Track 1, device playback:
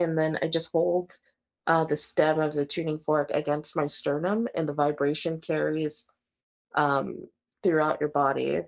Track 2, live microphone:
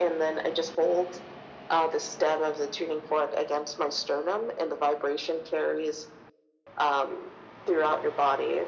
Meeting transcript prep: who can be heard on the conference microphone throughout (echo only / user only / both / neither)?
echo only